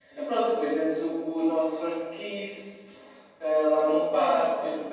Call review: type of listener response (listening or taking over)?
listening